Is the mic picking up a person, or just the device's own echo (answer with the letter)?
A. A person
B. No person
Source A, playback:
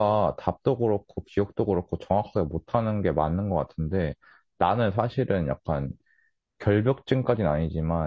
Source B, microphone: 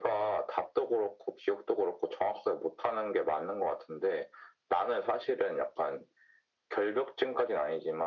B